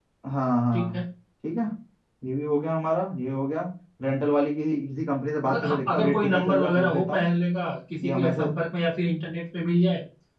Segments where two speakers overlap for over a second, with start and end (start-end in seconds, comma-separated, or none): 5.5-7.3